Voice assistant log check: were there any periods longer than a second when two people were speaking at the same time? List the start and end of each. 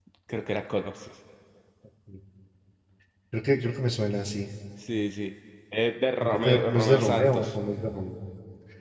6.2-7.6

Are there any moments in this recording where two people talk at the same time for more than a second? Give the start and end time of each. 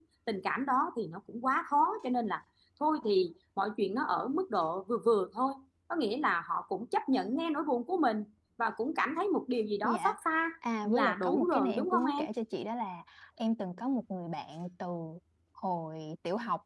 10.8-12.2

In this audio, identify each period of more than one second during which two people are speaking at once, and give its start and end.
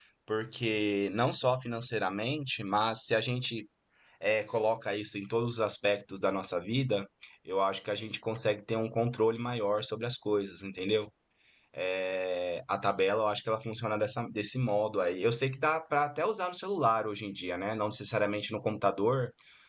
none

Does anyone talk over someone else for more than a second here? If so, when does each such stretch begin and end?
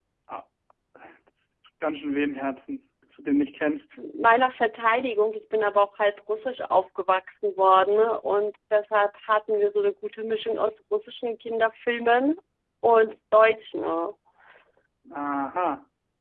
none

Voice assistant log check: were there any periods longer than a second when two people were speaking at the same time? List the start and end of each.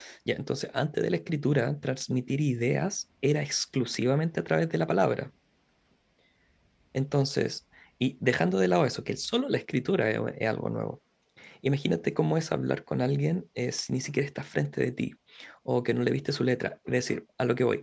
none

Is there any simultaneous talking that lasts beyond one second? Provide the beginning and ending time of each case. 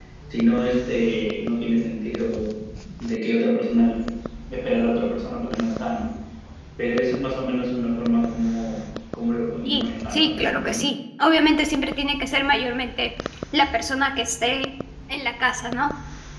9.6-10.9

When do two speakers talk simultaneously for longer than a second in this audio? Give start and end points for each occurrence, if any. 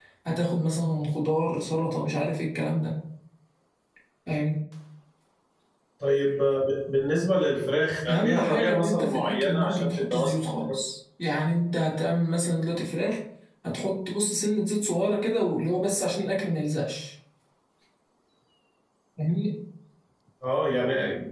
8.1-10.5

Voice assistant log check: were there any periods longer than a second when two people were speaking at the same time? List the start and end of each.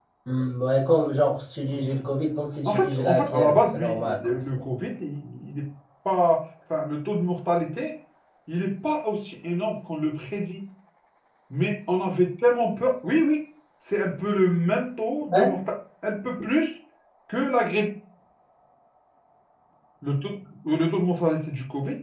2.6-4.5

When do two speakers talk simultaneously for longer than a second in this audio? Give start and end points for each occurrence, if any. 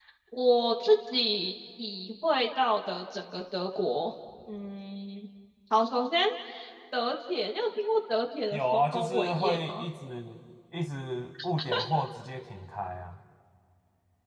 8.5-9.7

